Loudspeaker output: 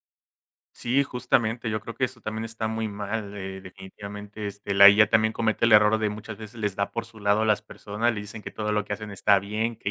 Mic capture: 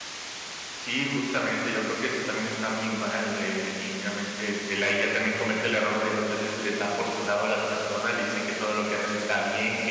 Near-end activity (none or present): none